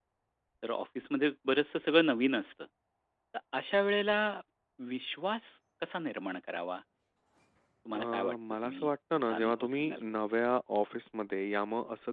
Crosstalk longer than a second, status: present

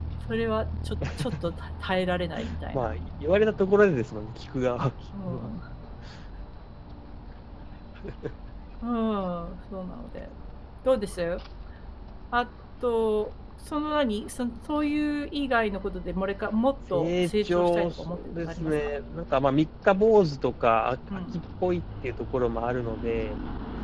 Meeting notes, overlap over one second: present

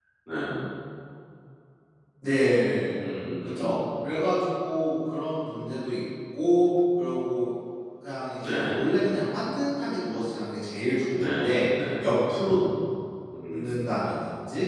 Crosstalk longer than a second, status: none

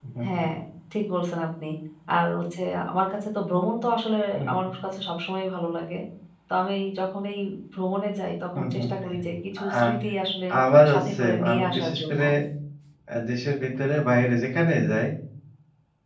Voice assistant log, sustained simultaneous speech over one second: present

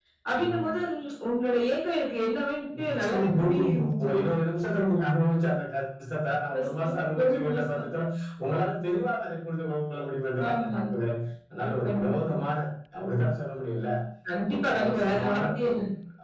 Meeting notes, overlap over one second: present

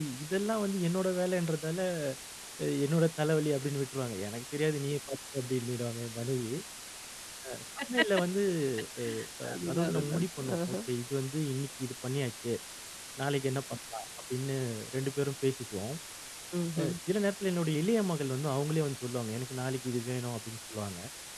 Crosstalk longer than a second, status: present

